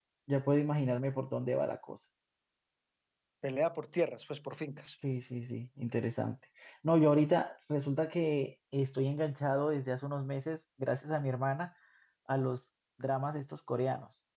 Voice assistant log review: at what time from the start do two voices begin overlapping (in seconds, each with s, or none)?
none